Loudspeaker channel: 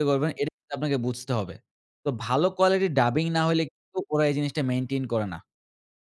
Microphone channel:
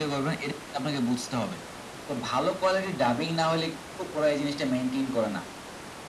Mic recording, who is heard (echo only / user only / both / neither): echo only